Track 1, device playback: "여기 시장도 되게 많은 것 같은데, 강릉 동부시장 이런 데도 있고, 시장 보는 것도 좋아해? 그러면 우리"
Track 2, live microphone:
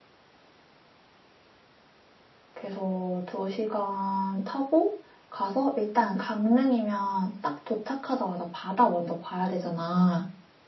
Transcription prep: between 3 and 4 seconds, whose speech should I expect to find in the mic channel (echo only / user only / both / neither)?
user only